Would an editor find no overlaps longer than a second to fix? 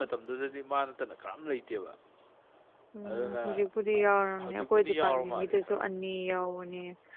No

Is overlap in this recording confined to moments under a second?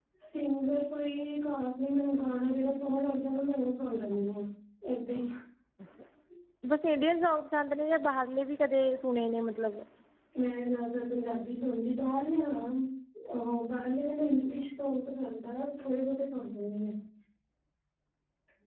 Yes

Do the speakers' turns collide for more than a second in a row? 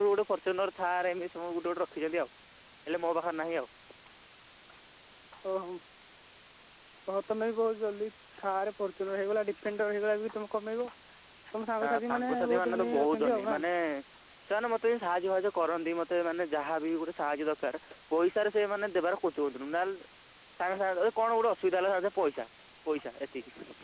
Yes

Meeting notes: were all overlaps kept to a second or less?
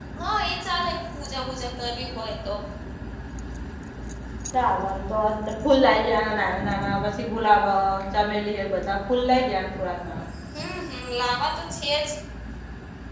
Yes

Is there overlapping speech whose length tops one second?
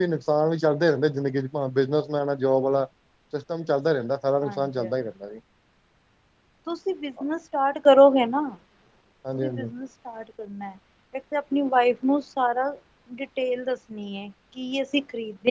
No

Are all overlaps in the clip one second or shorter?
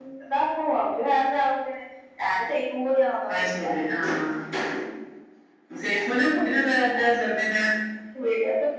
Yes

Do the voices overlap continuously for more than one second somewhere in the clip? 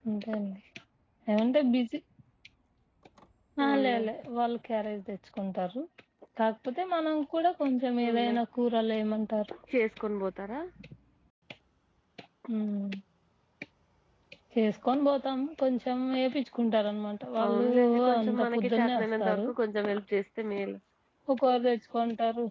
Yes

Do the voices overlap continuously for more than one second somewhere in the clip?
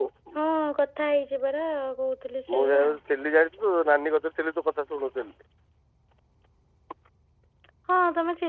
No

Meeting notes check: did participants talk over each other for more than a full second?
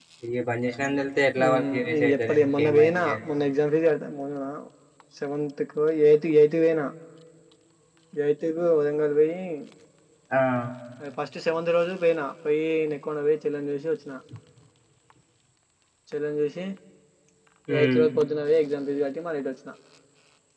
Yes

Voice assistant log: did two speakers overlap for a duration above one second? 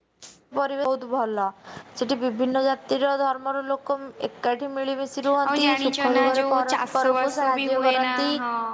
Yes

